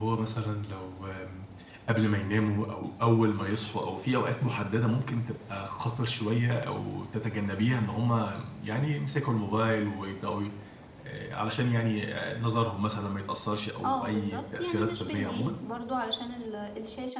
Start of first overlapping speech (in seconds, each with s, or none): 13.8 s